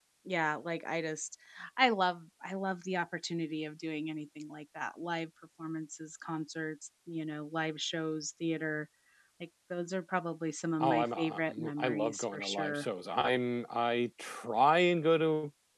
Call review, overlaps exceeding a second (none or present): present